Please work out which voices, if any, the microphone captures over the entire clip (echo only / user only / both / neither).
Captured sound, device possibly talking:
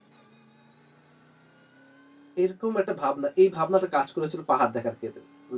user only